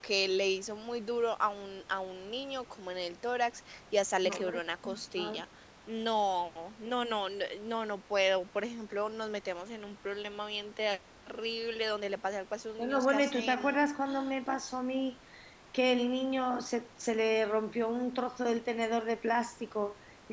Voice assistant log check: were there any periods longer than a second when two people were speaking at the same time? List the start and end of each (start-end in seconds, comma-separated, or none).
12.8-14.3